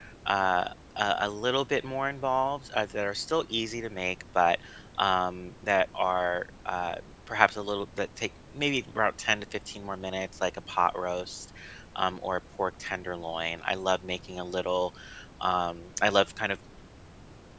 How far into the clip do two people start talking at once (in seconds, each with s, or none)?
none